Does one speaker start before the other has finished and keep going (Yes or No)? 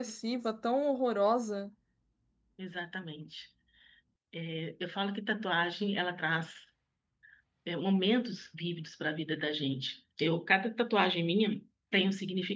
No